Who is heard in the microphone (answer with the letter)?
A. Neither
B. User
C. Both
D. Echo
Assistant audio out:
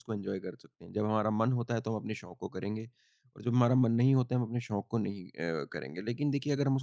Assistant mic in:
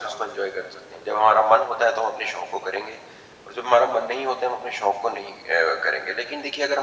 D